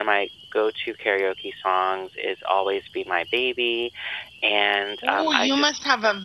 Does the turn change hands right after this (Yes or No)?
Yes